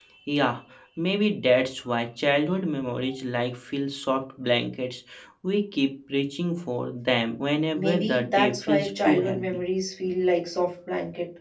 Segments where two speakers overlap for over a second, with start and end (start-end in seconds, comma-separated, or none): 7.7-9.6